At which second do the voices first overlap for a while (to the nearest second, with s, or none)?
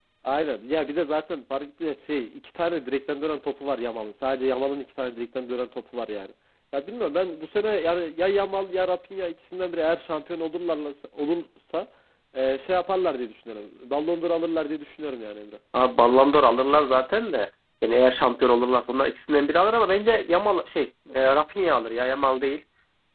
none